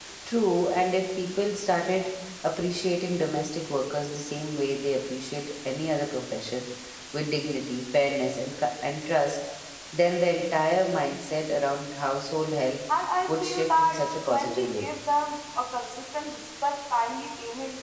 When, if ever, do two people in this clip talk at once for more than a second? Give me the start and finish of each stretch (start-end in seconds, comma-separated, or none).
13.3-14.9